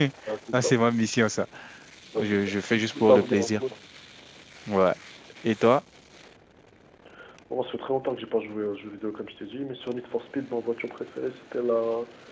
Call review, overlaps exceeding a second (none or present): present